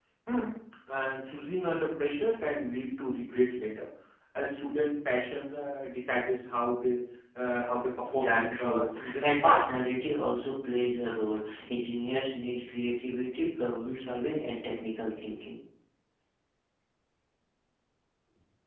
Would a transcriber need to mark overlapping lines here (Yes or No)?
Yes